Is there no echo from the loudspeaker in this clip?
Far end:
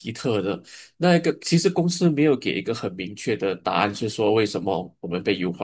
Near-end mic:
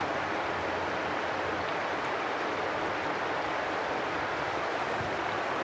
Yes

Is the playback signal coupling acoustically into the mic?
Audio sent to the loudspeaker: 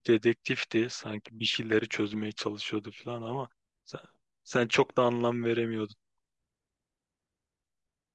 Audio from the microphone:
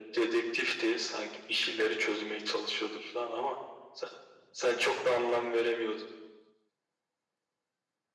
Yes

